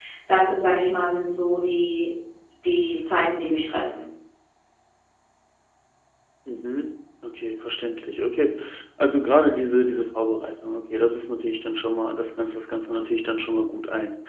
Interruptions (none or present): none